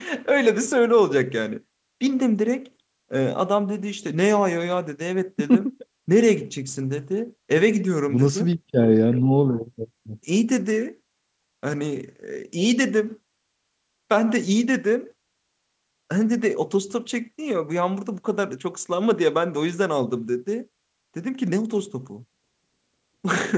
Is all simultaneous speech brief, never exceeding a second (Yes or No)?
Yes